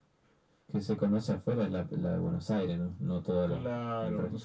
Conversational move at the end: taking over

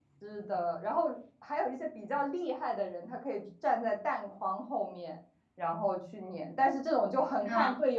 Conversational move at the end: listening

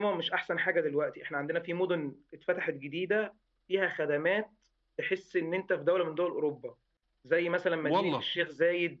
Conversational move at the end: listening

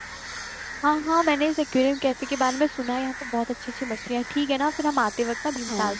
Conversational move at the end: listening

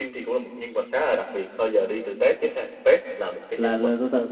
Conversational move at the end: taking over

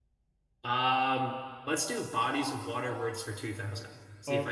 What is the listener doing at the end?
taking over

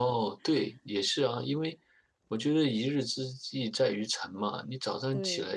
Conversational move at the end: listening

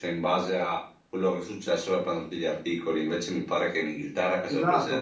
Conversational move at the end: taking over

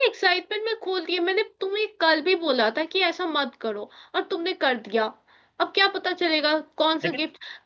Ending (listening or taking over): listening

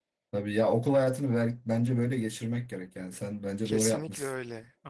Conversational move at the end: taking over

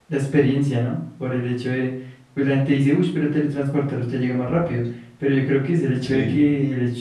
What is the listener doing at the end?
listening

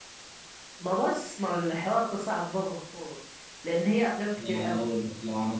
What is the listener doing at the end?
taking over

